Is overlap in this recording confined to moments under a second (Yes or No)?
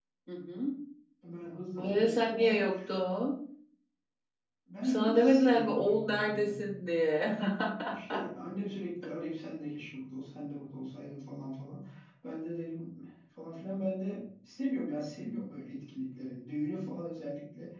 No